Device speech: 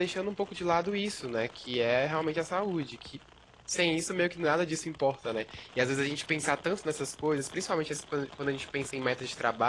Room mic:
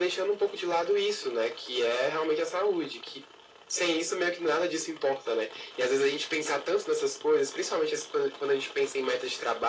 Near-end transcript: none

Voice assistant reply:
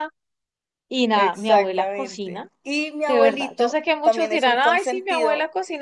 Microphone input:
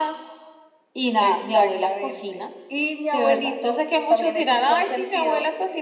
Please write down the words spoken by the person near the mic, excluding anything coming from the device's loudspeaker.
none

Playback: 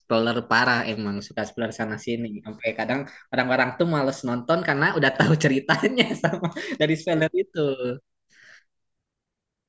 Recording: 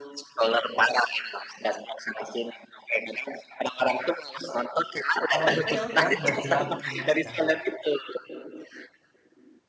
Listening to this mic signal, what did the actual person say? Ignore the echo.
Kalau bisa ya udah nggak jelas gini aja.

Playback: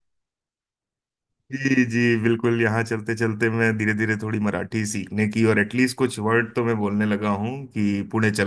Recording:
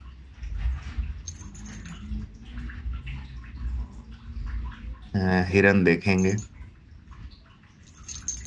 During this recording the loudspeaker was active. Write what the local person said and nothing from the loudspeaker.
अ, हिरन देखेंगे

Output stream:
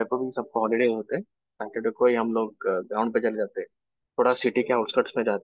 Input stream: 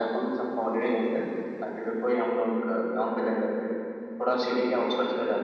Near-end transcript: none

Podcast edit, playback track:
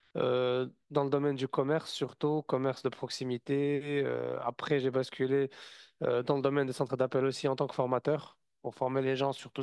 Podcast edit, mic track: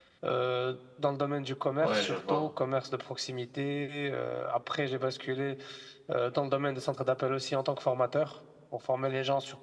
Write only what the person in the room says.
Ouais, je vois.

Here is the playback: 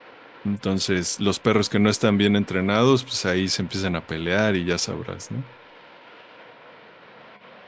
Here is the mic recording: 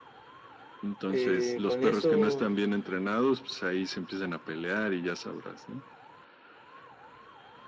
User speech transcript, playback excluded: eh, con eso...

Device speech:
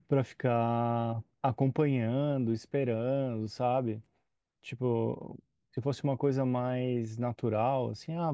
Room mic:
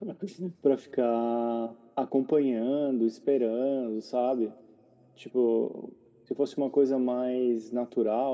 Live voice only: none

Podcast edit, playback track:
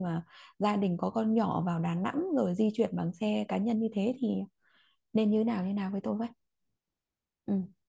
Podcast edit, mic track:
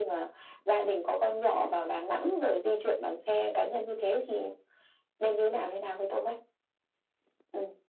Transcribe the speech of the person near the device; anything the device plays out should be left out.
none

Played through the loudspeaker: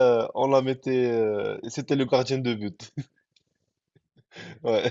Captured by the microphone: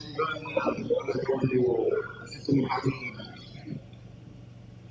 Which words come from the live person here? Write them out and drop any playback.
none

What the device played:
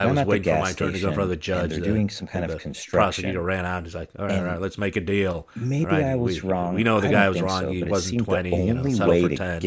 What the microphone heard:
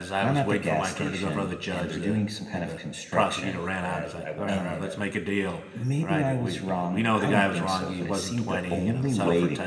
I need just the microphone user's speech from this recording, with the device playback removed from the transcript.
and i i went out and a

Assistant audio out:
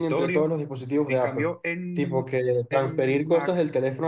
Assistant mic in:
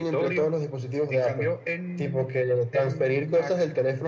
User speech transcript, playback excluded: none

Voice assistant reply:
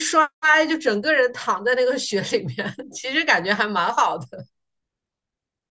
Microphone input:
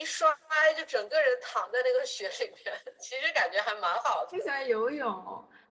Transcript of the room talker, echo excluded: 我喜欢游泳。

